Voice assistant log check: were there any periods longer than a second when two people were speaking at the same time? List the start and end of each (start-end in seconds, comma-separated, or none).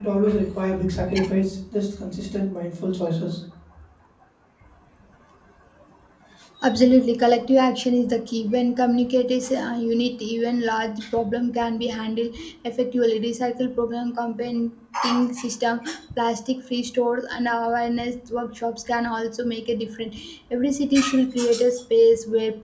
none